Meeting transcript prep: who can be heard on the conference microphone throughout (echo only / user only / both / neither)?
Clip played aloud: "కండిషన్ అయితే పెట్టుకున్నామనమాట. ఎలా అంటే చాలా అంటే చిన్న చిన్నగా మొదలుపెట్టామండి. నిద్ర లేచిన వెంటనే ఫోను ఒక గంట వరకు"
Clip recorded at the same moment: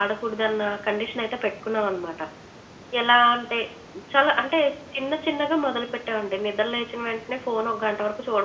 echo only